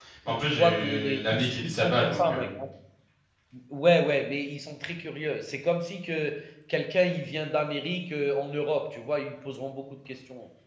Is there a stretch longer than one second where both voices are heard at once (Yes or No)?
Yes